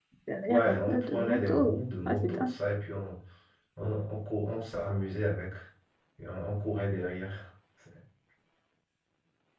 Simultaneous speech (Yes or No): Yes